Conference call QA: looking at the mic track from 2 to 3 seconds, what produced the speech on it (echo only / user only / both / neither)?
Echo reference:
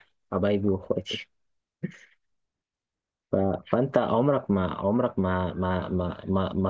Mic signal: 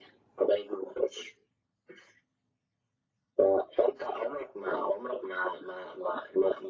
neither